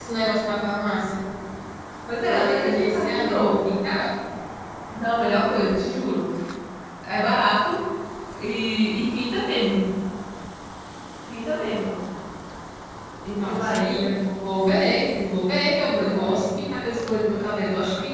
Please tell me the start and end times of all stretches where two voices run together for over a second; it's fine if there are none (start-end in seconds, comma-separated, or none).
2.3-3.7